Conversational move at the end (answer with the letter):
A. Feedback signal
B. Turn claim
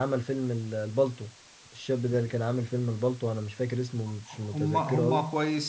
B